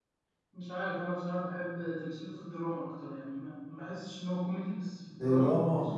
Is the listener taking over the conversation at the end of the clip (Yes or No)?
Yes